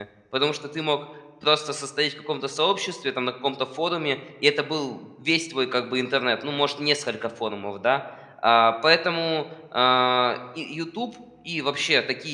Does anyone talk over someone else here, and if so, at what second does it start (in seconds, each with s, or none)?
none